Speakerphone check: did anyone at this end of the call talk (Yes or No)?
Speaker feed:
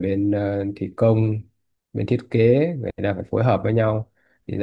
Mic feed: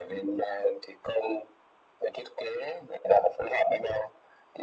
No